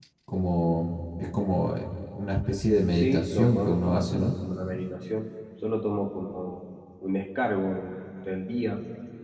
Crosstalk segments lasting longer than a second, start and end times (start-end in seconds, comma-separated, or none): 2.9-4.3